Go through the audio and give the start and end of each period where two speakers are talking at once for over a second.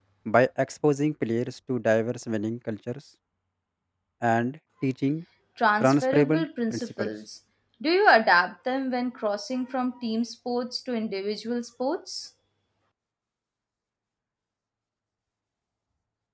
5.8-7.1

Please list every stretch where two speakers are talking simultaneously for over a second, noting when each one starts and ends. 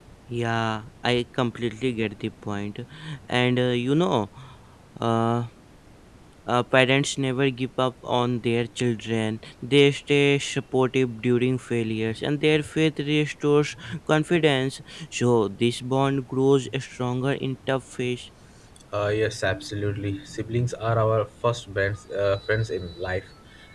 none

